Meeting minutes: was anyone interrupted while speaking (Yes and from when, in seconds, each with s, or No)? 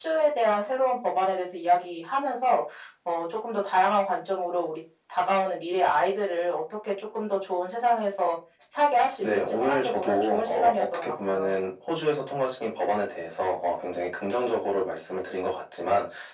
Yes, from 9.2 s